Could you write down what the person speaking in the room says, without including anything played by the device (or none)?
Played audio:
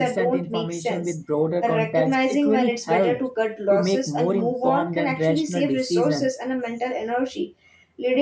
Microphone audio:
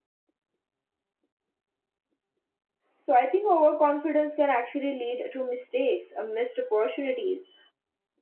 So I think overconfidence can actually lead to mistakes, uh, missed opportunities,